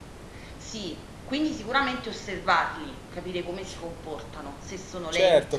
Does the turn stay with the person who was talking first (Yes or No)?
No